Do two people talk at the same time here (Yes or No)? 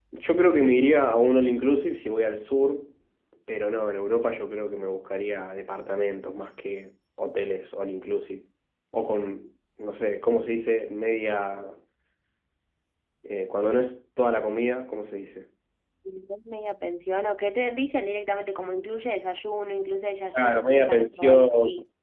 Yes